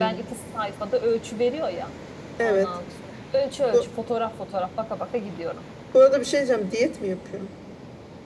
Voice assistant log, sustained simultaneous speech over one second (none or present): none